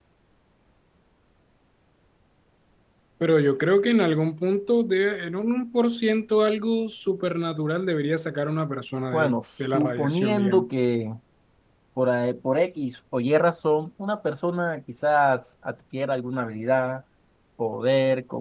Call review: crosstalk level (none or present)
present